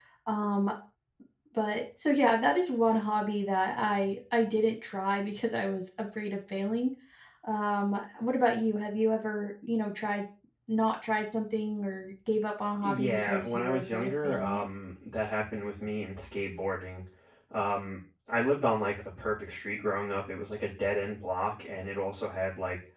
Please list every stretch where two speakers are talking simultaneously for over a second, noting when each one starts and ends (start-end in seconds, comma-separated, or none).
12.8-14.6